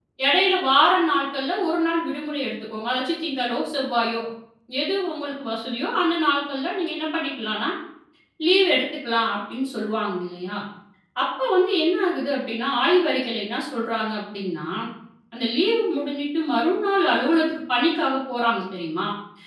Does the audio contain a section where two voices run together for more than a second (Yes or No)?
No